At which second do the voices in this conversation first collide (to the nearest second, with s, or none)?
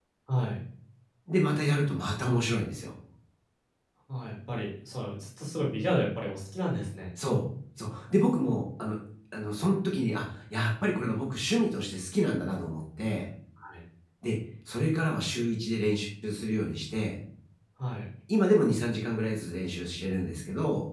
none